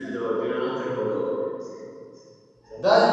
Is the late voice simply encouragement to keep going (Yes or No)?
No